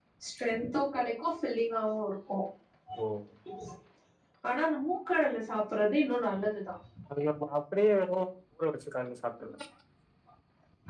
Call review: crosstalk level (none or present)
none